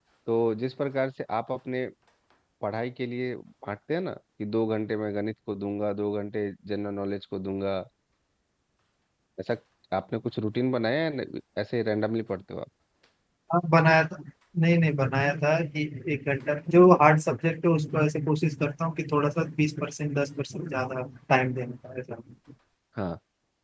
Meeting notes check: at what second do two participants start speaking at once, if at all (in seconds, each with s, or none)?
none